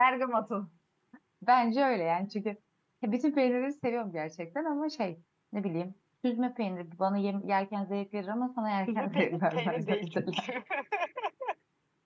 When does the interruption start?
8.9 s

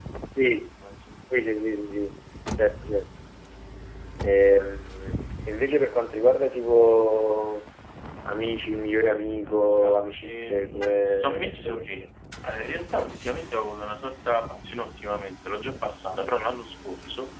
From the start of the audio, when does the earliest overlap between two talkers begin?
9.5 s

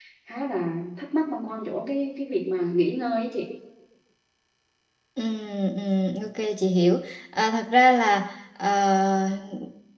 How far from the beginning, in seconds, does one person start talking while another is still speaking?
none

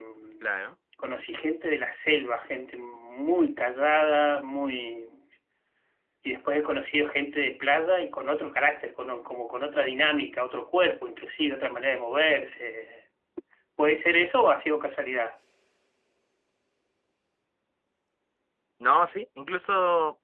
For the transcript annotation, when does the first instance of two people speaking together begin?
none

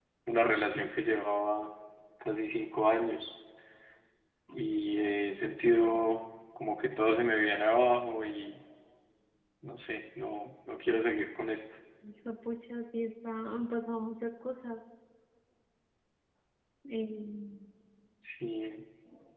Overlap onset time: none

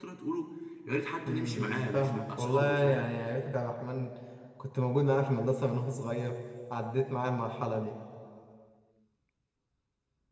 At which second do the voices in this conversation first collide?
1.3 s

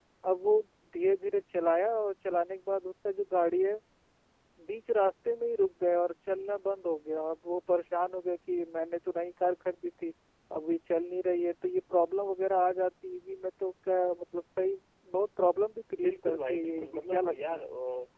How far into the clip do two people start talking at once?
15.9 s

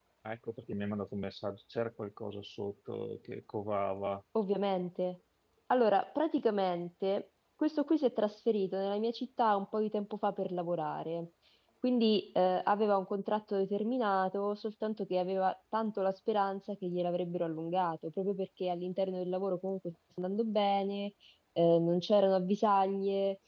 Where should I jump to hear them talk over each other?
none

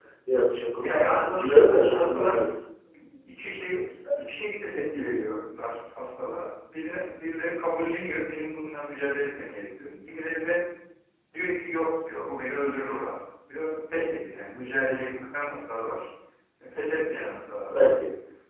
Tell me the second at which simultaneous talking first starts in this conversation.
0.7 s

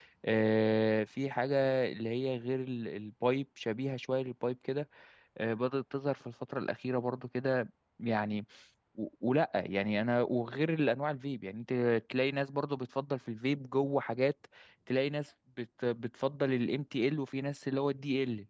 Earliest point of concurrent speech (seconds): none

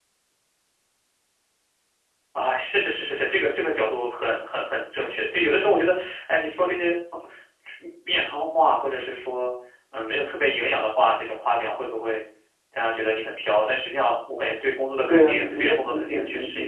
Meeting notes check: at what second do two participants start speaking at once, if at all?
15.1 s

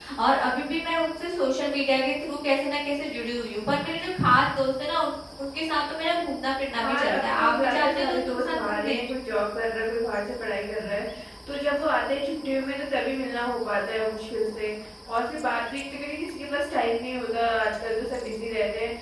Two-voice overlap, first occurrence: 6.8 s

